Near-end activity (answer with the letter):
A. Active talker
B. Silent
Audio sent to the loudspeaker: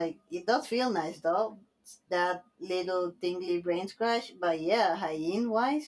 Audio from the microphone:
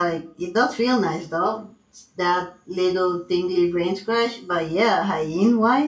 B